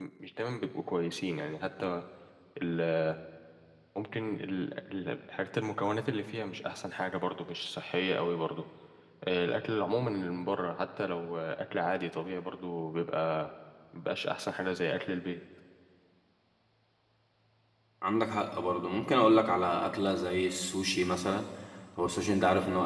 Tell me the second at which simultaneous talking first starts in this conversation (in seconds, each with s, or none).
none